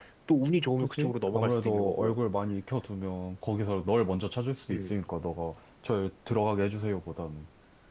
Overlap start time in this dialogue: 0.8 s

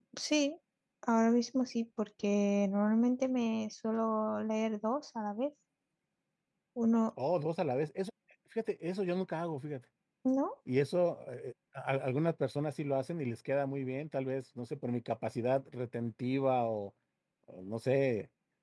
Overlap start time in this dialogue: none

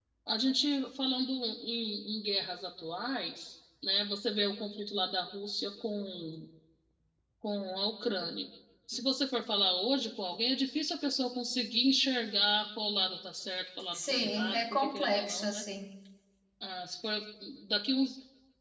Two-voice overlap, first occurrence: 13.9 s

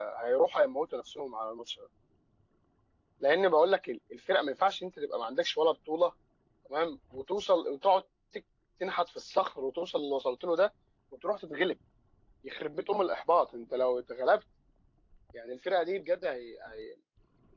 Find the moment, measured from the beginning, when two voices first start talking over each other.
none

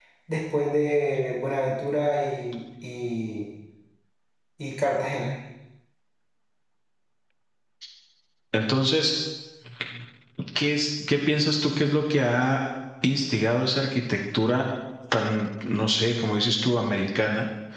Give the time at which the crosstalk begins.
none

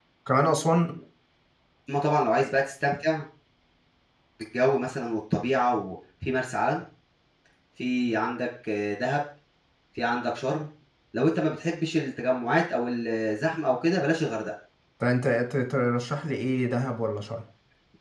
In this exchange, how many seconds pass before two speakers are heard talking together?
none

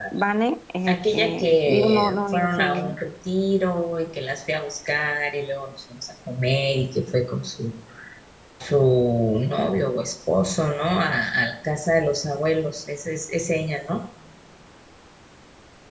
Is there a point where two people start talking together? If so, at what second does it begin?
0.9 s

